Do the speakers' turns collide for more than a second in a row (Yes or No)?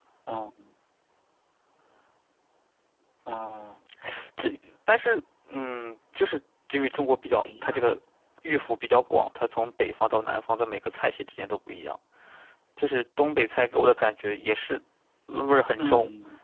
No